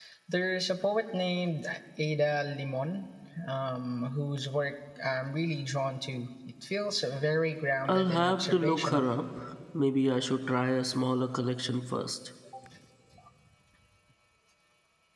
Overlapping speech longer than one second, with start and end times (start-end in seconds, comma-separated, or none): 7.9-9.1